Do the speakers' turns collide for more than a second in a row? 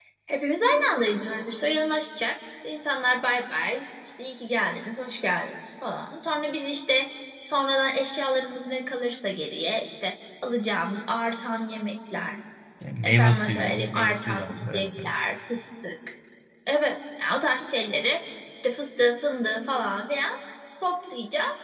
Yes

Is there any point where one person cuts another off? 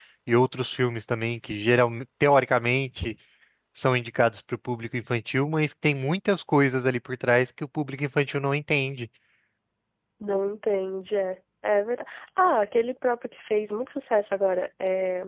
No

